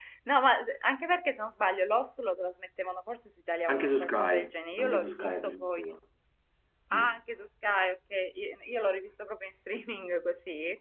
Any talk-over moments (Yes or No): Yes